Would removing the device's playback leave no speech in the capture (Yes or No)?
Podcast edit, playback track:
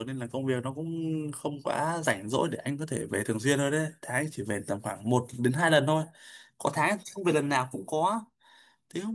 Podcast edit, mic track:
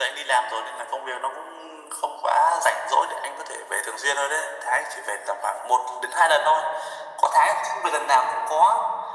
Yes